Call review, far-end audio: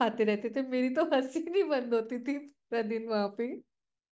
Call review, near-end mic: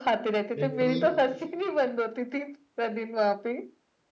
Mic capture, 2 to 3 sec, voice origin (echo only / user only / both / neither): echo only